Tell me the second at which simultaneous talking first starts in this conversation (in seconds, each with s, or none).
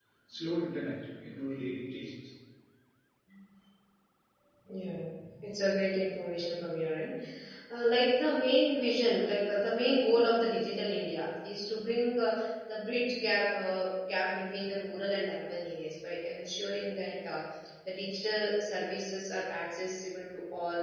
none